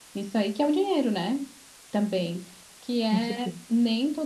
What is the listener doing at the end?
listening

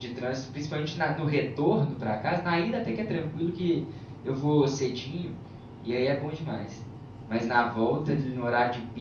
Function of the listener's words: listening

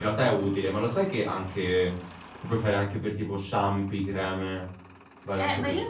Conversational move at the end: taking over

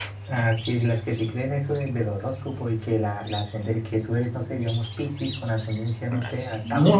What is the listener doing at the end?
taking over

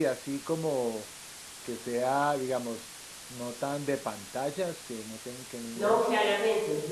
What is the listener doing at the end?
taking over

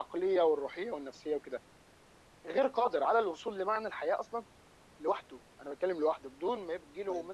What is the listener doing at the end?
taking over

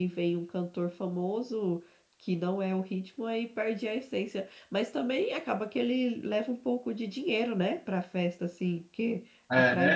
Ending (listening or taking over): taking over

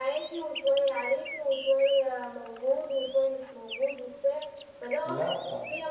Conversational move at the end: listening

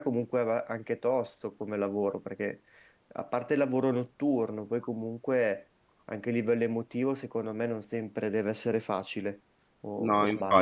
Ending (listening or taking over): taking over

